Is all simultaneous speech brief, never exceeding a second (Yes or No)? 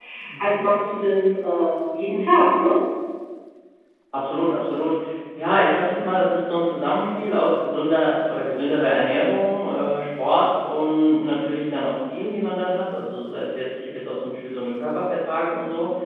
Yes